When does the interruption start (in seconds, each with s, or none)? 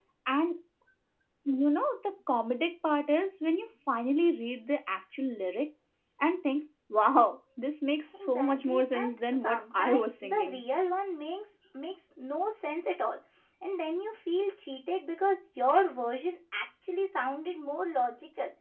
8.1 s